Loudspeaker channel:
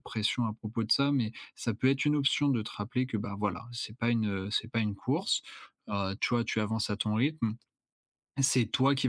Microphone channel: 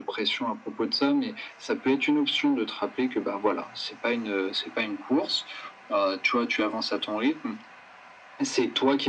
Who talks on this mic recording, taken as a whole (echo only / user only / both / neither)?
echo only